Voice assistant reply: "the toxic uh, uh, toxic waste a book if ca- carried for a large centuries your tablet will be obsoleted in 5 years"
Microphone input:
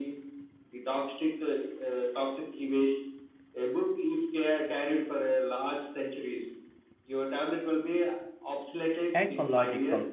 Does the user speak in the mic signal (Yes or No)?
Yes